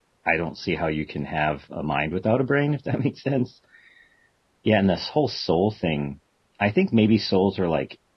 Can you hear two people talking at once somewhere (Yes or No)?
No